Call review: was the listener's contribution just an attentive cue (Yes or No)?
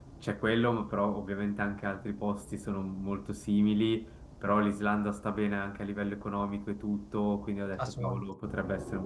Yes